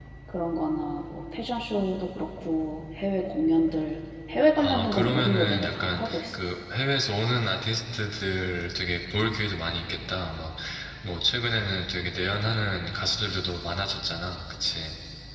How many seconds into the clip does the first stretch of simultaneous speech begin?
5 s

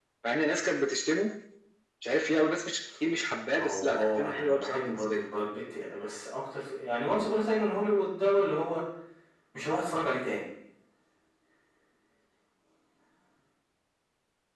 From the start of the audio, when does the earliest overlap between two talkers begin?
4 s

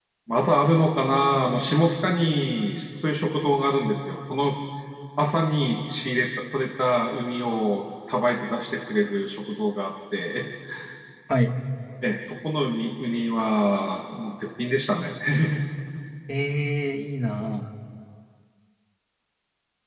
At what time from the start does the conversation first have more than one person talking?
none

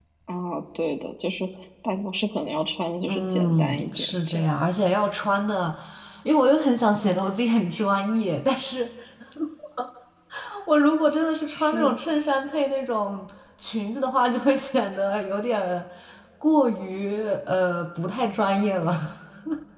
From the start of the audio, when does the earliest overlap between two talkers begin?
3 s

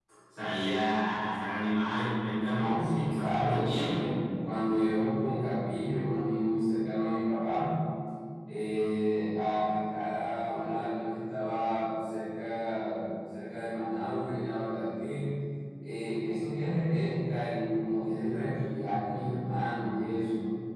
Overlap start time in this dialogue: 2 s

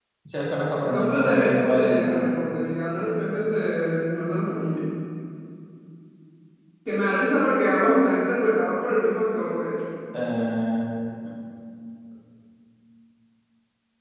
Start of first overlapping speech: 1 s

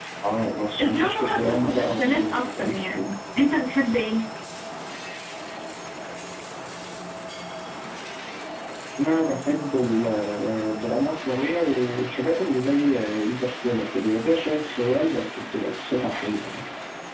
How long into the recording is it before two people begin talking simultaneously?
1 s

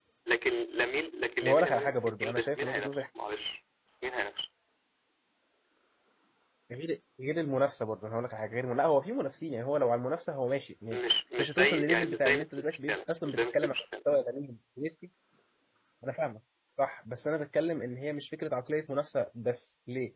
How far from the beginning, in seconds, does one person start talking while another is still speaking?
1 s

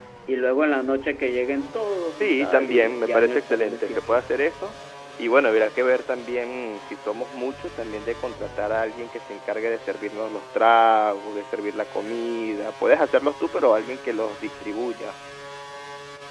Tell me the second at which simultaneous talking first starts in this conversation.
2 s

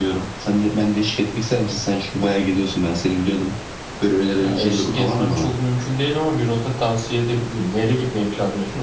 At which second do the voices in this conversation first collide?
4 s

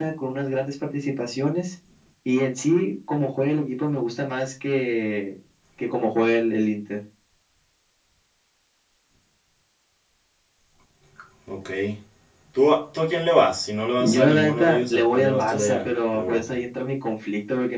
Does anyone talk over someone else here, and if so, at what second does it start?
14 s

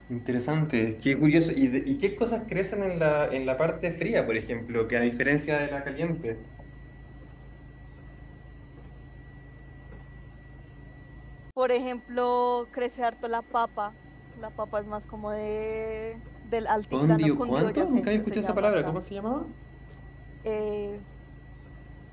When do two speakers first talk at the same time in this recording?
17 s

